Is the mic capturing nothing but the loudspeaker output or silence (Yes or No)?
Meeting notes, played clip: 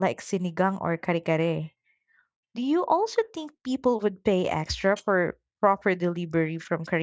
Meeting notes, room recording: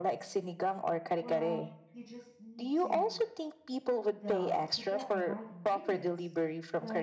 No